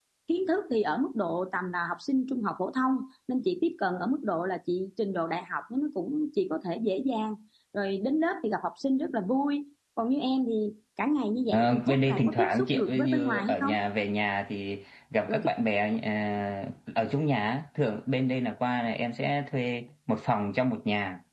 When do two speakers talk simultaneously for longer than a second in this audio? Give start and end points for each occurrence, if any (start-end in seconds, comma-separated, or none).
11.5-13.7